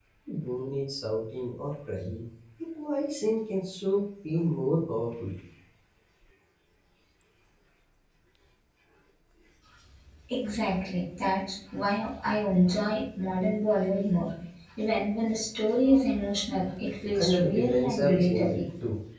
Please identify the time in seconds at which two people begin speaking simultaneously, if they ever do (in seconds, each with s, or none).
17.2 s